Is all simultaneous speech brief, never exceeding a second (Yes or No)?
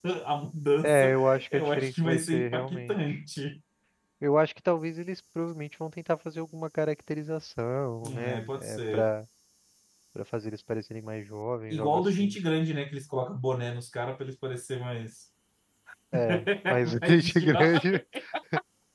No